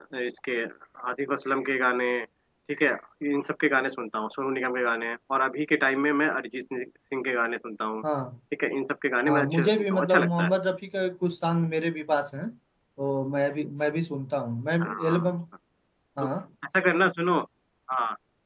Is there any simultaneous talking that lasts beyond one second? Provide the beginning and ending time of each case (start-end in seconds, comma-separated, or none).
9.3-10.5